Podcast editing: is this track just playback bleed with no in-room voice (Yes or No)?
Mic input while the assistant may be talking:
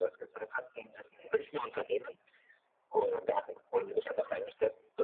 Yes